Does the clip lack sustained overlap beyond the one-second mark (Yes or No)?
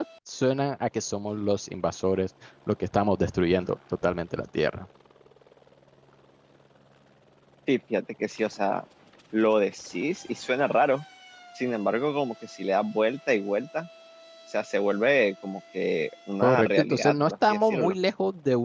No